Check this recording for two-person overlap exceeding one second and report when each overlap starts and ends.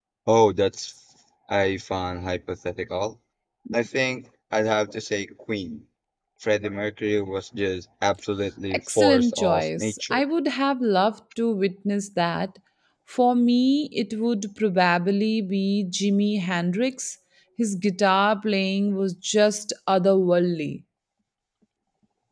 8.7-10.2

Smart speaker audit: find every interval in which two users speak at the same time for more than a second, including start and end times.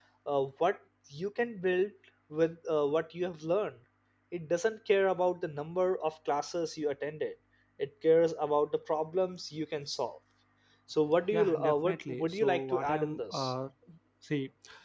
11.3-13.5

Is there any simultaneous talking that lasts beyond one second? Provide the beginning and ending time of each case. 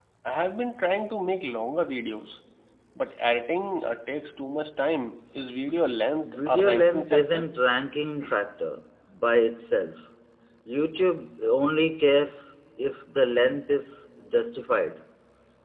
6.2-7.5

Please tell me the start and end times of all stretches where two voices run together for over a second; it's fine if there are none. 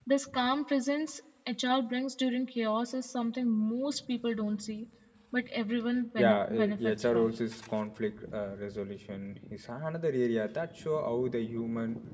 6.2-7.4

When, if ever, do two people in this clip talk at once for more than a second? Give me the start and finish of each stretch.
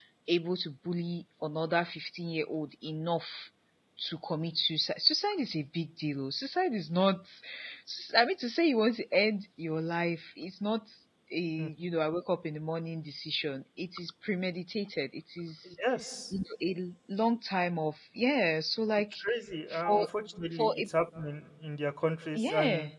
none

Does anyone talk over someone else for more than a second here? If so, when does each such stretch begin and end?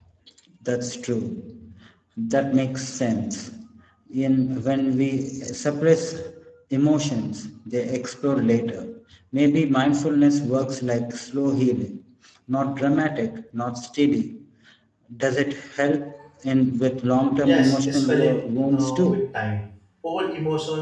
17.4-19.2

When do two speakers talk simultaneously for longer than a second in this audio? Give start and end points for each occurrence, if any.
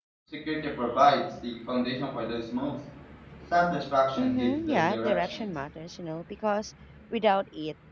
4.2-5.5

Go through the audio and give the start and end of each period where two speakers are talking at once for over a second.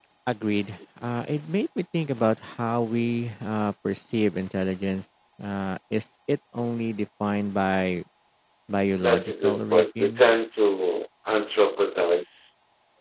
9.0-10.3

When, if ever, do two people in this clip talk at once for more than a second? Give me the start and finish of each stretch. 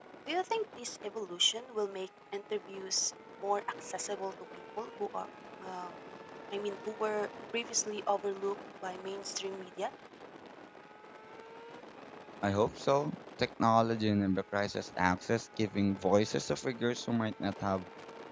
none

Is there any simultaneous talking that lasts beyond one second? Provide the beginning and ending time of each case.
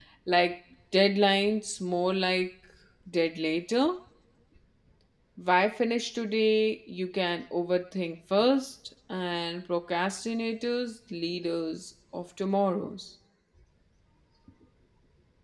none

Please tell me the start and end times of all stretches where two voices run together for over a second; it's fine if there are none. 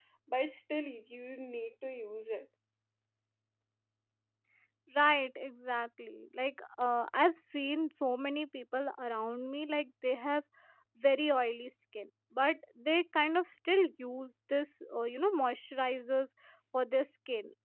none

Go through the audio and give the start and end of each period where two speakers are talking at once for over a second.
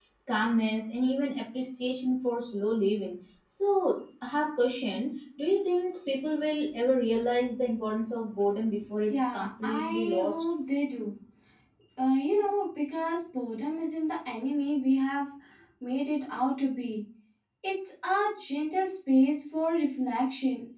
9.1-10.4

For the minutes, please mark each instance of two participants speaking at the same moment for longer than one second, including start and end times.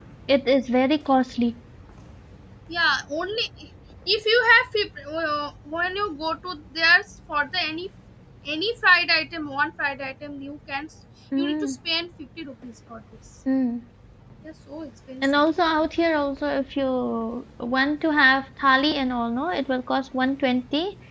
none

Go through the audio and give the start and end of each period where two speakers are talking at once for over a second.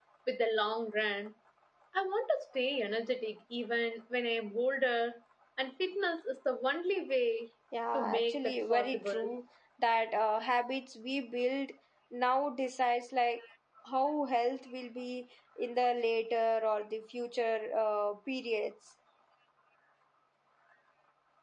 7.9-9.2

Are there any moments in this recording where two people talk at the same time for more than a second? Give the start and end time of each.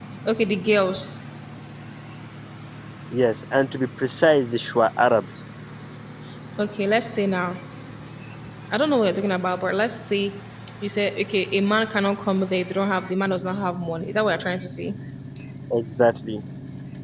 none

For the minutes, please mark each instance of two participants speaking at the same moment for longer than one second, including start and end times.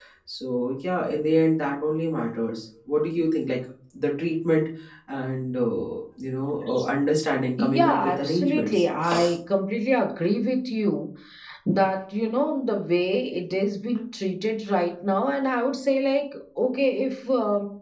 7.6-8.8

